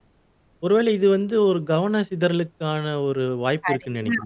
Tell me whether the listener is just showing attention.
No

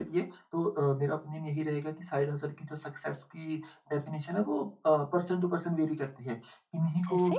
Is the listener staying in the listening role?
Yes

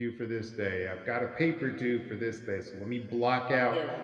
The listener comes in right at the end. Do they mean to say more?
No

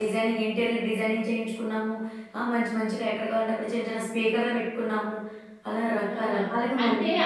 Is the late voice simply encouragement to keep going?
No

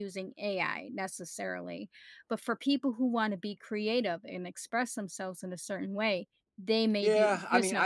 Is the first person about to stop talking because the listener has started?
Yes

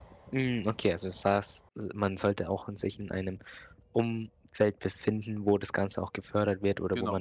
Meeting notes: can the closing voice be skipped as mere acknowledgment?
Yes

